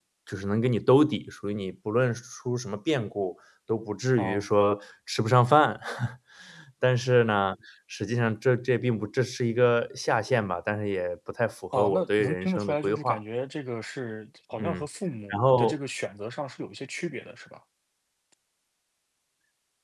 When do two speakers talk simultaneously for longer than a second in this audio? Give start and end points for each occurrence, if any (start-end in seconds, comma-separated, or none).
11.8-13.2